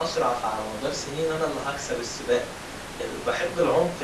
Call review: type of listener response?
listening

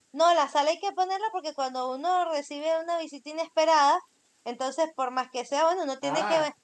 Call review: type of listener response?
taking over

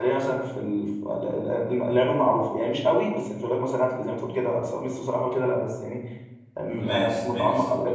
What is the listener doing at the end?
listening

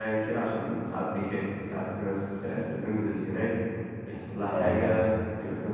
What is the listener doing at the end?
listening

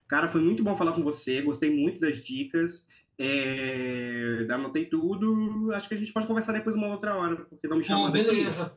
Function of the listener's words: taking over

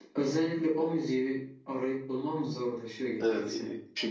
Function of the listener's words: taking over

